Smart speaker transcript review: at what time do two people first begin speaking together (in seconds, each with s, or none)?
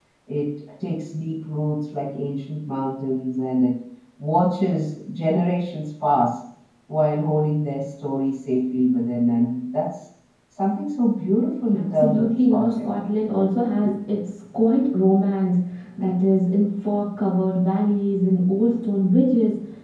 11.7 s